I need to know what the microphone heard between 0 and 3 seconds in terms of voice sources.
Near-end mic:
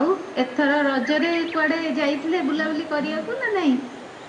echo only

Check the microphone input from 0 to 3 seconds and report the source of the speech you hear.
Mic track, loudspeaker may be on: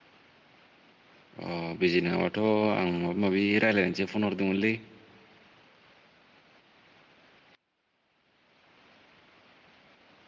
user only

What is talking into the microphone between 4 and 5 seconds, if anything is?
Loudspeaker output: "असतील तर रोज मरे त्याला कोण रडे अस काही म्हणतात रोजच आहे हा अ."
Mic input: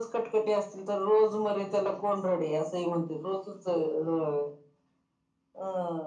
echo only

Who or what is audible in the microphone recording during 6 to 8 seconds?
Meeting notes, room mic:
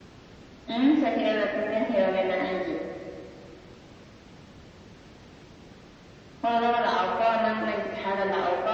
echo only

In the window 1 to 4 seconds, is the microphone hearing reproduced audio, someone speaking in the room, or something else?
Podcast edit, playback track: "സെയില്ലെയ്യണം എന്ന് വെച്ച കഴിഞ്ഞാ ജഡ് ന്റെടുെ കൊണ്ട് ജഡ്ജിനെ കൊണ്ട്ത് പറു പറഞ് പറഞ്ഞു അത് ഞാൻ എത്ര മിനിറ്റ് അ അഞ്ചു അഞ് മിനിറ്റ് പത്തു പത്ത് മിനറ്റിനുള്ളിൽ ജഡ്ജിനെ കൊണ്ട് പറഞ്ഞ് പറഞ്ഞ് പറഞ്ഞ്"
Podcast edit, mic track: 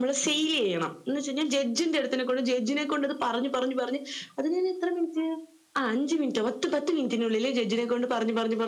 echo only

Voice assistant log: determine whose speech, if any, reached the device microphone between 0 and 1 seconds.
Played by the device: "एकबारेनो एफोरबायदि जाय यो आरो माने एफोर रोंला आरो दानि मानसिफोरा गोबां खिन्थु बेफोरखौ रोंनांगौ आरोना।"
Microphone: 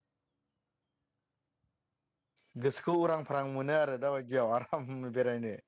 neither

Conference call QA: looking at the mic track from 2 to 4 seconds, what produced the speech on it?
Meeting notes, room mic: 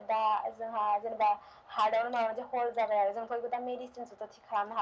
echo only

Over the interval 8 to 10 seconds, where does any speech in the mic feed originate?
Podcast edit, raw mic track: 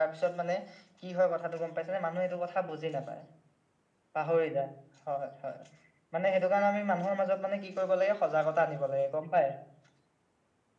echo only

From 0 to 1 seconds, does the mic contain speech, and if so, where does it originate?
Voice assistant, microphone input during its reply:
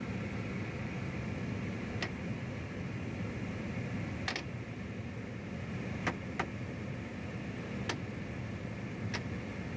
neither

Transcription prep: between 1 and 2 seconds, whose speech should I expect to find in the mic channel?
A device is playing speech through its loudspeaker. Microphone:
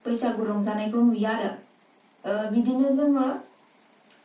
echo only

